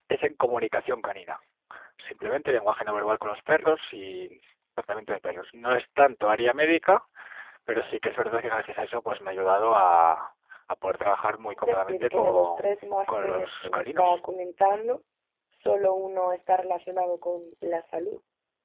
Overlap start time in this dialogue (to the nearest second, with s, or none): 11 s